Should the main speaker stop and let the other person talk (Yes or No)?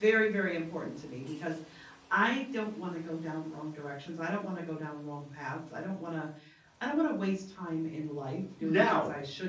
No